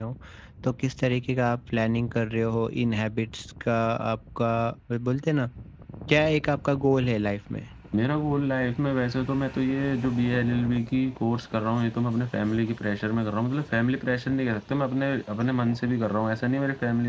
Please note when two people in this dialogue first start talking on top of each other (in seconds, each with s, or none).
none